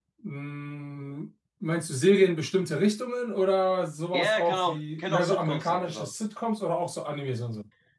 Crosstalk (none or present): present